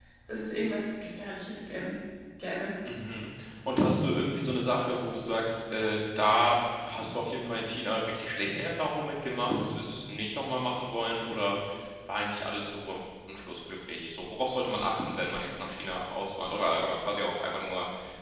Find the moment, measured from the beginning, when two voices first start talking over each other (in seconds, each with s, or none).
none